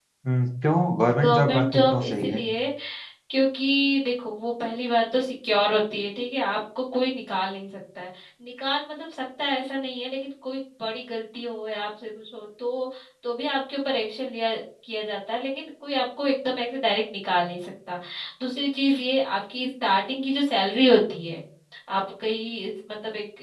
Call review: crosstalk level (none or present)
present